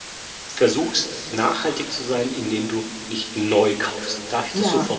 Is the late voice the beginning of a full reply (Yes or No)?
Yes